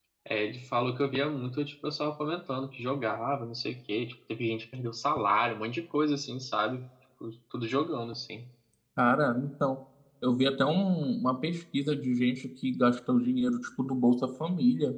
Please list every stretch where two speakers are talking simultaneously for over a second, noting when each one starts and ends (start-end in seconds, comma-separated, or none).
none